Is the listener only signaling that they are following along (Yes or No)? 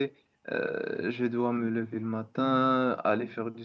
Yes